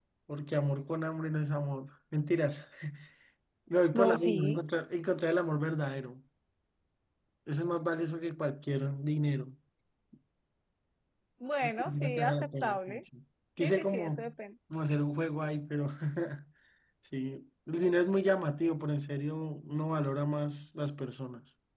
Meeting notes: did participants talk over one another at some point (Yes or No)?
Yes